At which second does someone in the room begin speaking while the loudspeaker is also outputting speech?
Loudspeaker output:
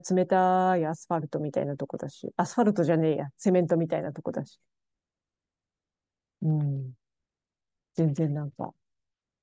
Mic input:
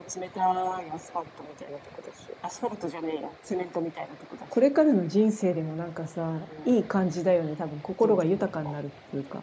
4 s

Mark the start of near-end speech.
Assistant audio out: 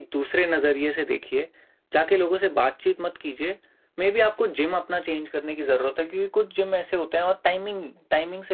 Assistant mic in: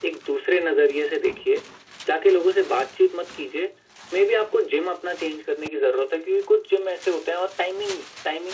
none

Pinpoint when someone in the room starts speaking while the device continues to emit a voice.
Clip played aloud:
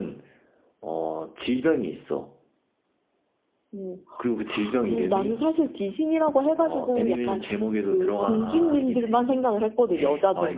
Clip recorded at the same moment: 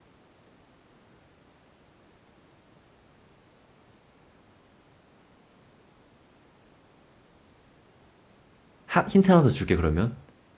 9 s

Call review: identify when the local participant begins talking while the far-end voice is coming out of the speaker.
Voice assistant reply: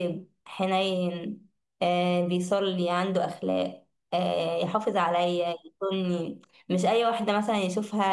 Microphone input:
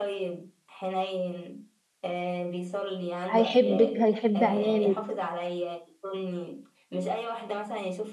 3 s

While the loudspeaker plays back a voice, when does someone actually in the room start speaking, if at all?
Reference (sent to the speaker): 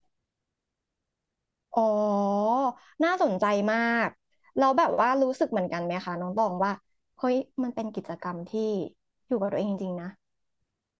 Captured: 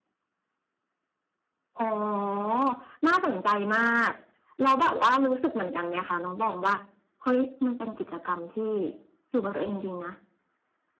none

